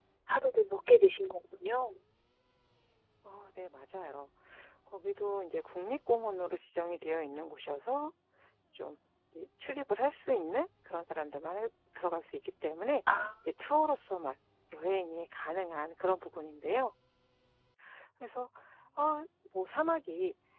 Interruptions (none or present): none